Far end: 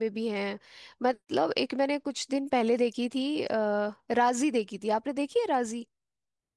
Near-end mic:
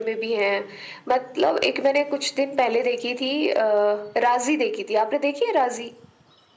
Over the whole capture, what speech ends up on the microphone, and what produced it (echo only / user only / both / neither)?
echo only